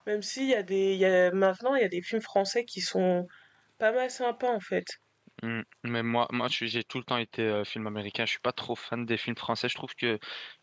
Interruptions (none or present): none